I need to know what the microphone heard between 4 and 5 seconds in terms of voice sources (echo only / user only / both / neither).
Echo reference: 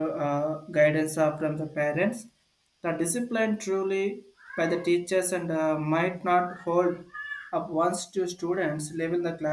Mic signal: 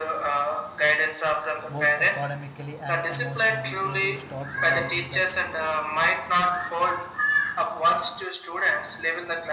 both